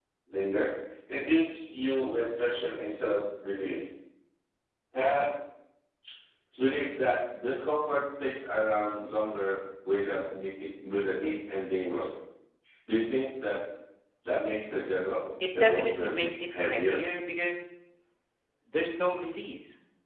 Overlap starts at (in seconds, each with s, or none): 15.4 s